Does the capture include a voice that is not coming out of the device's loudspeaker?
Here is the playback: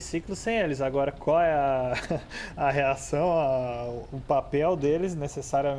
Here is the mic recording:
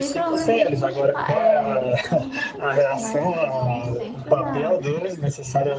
Yes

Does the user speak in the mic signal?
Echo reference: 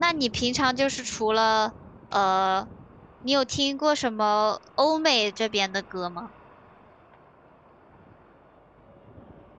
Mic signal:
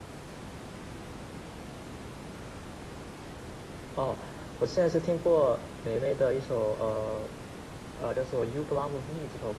Yes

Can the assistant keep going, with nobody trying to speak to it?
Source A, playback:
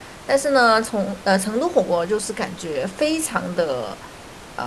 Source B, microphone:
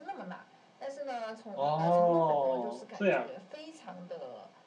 No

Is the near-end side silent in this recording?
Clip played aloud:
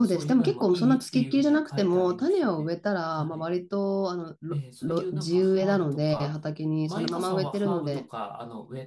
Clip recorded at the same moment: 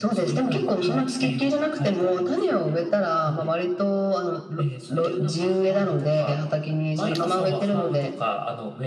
Yes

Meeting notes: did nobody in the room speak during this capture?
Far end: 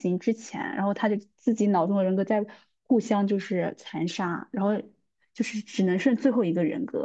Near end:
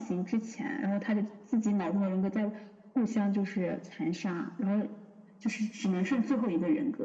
Yes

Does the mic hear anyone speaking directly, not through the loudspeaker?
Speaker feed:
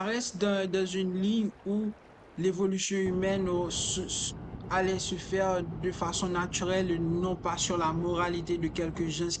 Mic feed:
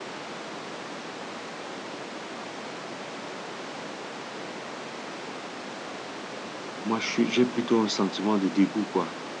Yes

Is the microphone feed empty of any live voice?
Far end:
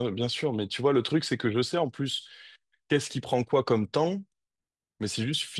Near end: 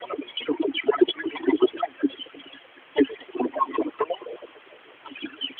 Yes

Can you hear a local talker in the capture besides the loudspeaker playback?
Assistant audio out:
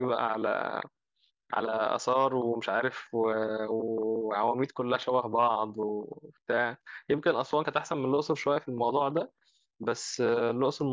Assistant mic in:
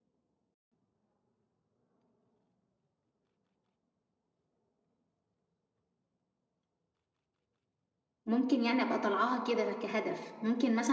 Yes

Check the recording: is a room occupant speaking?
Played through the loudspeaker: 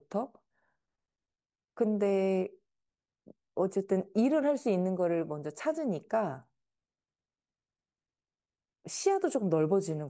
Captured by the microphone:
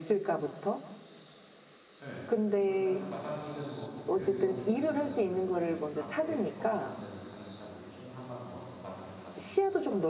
Yes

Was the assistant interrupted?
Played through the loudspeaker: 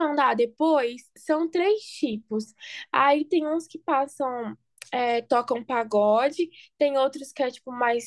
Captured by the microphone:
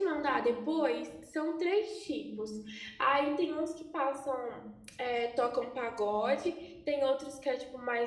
Yes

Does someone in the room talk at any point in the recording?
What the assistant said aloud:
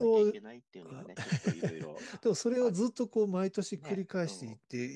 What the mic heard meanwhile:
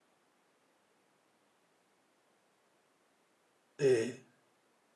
Yes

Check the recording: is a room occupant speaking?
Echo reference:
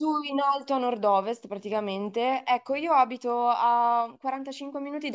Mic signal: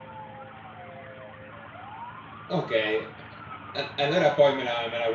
Yes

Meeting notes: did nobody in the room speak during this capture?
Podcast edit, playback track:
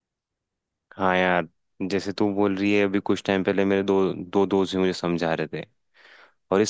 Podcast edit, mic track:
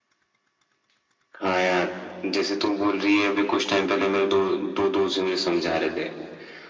Yes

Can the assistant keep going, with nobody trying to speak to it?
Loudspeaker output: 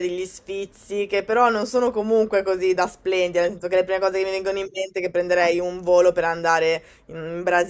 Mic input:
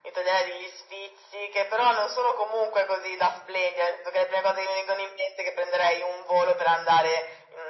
Yes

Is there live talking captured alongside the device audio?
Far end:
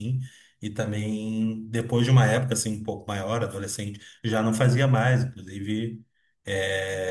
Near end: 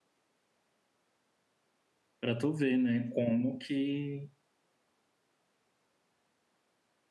Yes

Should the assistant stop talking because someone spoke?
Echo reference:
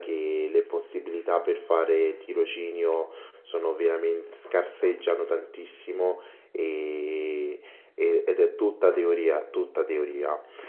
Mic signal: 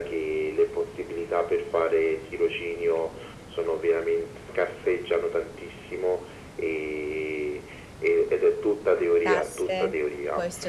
Yes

